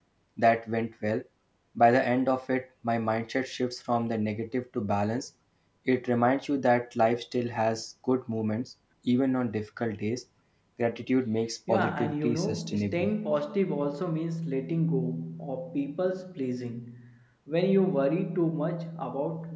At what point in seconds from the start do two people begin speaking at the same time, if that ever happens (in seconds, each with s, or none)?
11.7 s